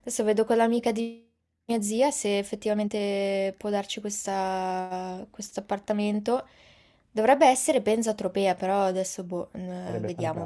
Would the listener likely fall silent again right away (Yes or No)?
No